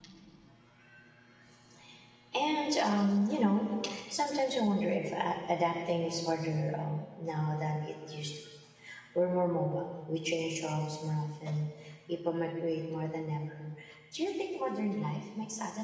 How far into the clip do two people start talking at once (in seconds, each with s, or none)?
none